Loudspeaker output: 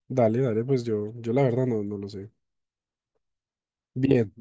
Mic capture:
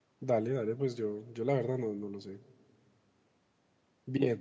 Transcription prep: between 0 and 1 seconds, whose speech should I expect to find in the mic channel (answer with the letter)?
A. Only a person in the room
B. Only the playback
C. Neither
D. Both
B